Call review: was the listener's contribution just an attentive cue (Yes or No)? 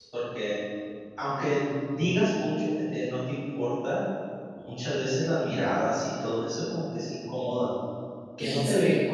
Yes